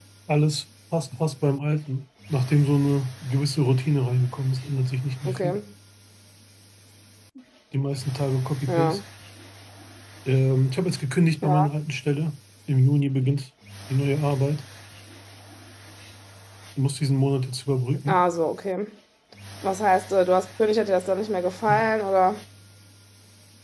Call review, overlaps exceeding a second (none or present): none